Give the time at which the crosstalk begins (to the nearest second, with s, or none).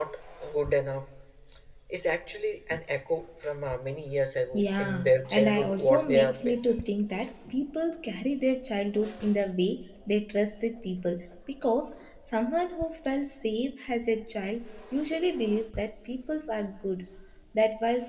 5 s